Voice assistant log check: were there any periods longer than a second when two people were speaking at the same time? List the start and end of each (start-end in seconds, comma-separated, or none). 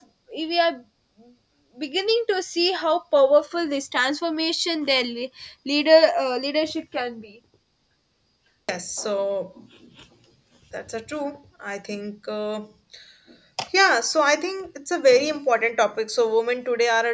none